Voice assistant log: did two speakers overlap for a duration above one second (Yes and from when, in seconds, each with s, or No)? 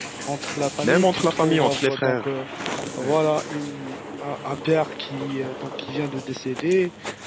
Yes, from 0.8 s